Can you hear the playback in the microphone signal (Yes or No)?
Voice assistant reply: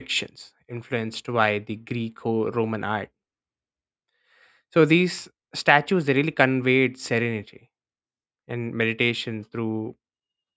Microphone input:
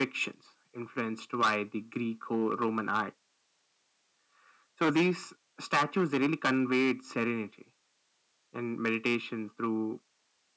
Yes